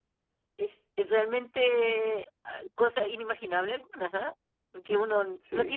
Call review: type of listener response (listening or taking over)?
listening